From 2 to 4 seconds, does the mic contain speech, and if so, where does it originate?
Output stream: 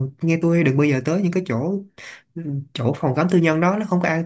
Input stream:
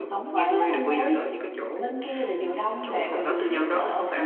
both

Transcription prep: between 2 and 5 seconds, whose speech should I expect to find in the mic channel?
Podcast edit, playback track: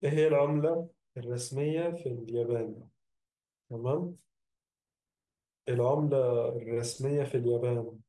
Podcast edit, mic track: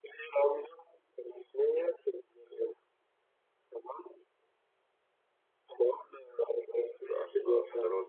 echo only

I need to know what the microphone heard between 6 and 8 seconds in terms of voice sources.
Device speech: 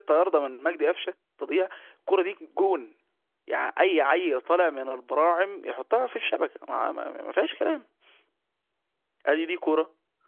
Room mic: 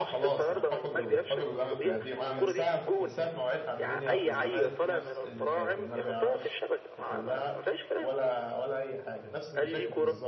both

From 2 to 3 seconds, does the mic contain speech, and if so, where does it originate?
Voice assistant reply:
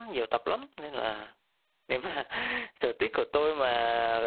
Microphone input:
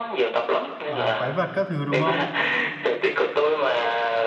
both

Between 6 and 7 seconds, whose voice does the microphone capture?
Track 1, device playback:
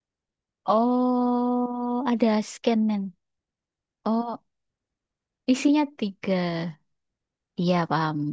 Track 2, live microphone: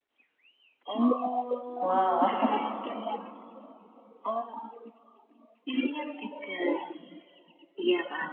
echo only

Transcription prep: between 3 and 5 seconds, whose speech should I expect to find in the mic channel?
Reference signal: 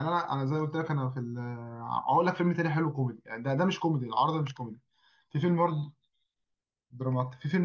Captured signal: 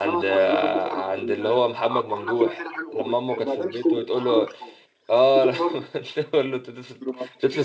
both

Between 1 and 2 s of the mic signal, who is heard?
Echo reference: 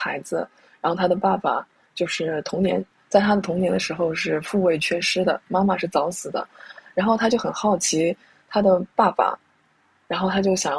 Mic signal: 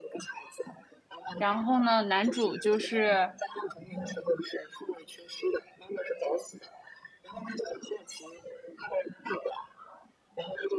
both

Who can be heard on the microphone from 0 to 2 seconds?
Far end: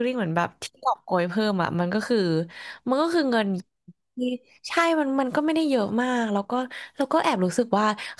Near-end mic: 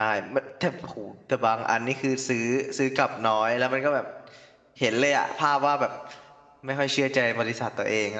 user only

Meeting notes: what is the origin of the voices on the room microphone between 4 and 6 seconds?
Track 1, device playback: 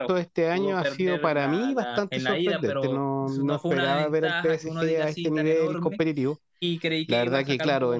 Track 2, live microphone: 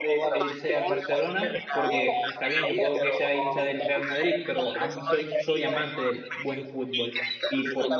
both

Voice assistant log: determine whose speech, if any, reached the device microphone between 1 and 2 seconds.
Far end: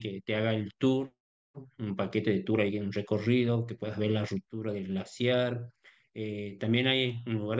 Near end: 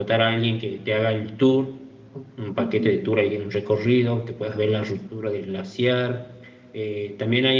echo only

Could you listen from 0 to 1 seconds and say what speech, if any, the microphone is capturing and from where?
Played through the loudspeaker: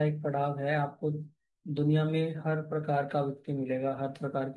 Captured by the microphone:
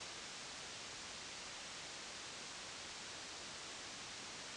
neither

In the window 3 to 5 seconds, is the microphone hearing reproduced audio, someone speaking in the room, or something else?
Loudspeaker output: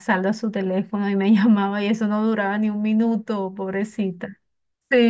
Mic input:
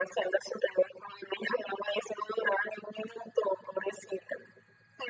echo only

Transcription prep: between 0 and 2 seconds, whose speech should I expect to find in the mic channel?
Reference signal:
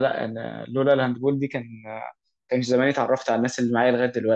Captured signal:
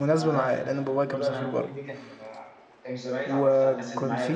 both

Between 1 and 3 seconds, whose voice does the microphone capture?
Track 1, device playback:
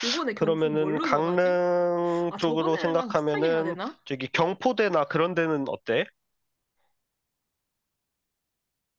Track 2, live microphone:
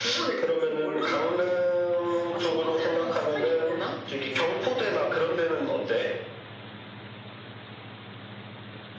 echo only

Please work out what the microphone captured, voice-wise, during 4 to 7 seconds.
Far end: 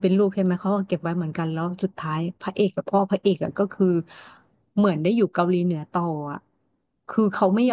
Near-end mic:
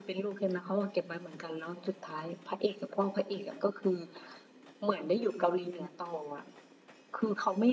echo only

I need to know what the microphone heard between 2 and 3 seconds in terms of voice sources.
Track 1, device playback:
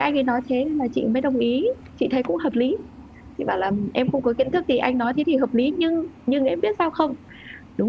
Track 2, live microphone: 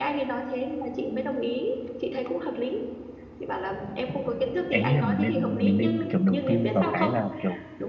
echo only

